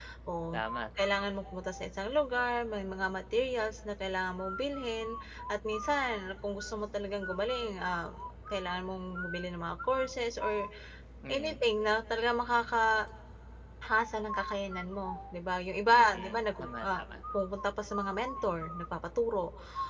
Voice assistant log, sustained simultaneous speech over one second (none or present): present